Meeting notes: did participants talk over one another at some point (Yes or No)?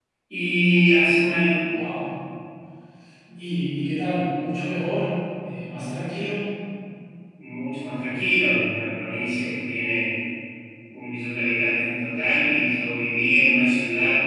No